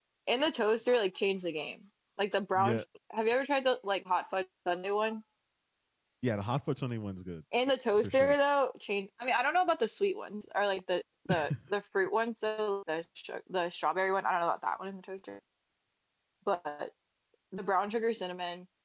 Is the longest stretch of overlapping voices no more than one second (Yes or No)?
Yes